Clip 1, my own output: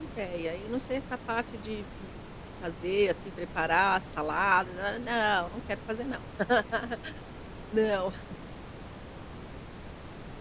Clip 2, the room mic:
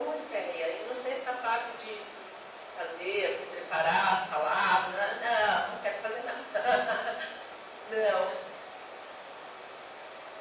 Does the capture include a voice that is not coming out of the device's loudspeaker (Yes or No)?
No